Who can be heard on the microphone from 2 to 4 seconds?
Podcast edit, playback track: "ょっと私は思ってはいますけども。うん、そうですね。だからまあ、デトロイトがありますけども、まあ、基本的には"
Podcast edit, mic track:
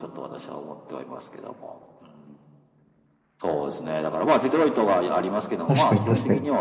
echo only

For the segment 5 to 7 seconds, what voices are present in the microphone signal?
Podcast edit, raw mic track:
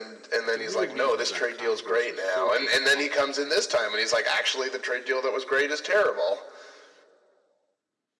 echo only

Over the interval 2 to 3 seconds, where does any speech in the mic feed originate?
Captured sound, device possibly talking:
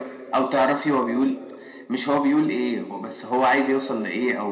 echo only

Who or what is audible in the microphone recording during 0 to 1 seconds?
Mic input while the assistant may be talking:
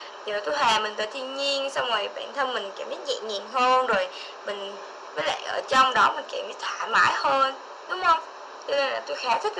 echo only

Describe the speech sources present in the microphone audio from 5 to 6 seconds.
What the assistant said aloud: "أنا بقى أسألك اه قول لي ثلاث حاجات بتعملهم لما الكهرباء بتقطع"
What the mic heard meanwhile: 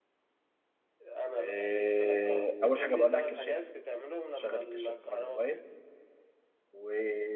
both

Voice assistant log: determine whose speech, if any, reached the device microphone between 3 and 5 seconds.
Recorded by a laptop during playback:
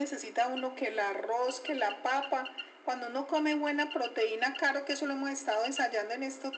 echo only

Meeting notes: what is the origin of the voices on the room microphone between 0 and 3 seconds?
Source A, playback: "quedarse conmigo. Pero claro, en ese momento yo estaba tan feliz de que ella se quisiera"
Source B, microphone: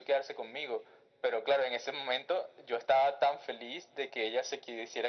echo only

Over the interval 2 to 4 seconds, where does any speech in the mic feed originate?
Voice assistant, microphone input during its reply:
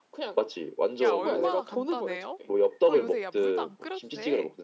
both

